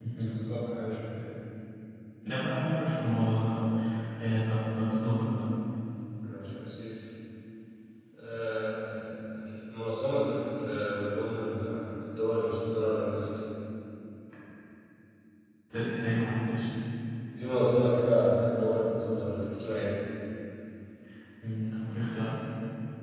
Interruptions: none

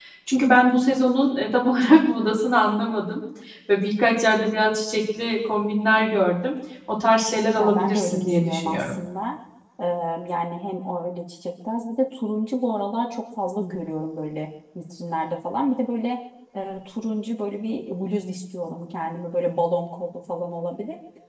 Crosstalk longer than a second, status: present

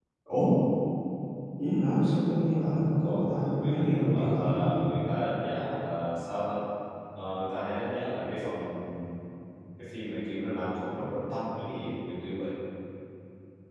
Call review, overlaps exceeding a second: present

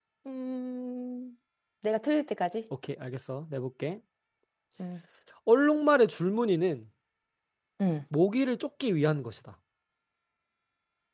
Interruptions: none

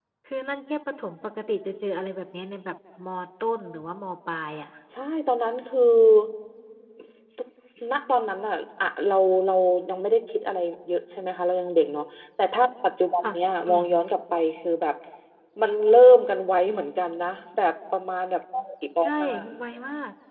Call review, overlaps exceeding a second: none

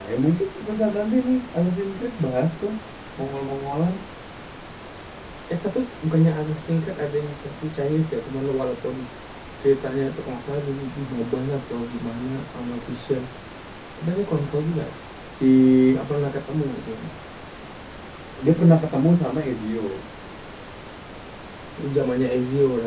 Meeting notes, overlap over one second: none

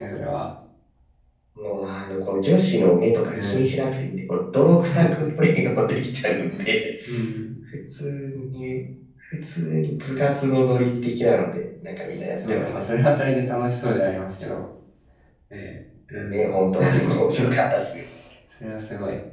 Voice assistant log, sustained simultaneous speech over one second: none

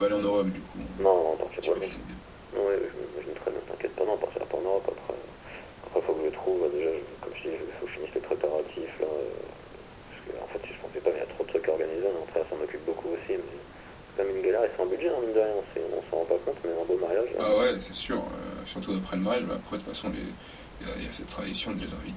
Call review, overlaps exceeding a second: none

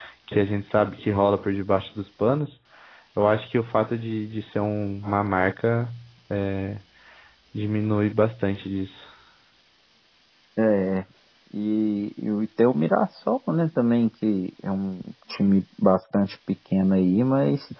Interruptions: none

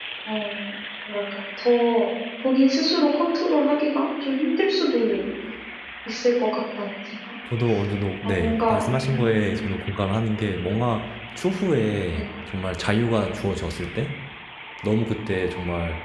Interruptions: present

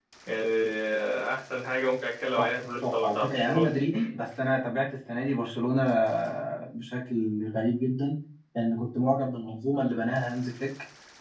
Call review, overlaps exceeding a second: present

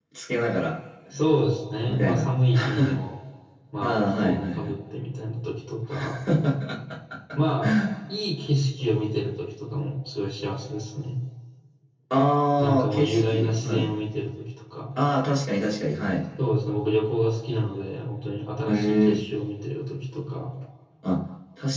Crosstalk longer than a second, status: present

